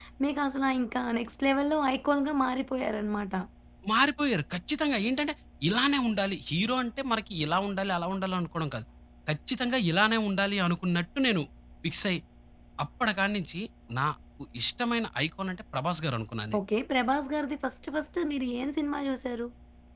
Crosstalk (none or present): none